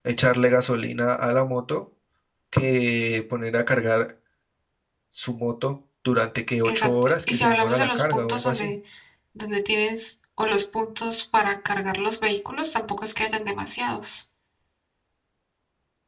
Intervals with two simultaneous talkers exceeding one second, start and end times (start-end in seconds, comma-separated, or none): 6.6-8.7